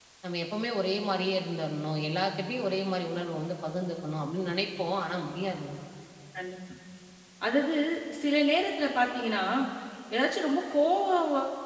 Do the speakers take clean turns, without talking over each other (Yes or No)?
Yes